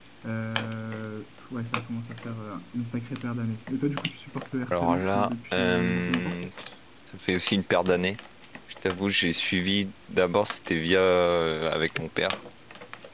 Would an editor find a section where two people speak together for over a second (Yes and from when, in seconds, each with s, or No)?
Yes, from 4.7 s